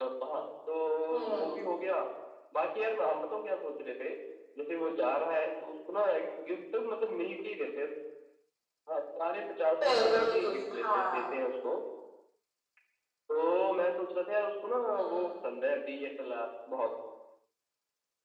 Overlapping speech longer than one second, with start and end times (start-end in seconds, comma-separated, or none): 9.8-11.2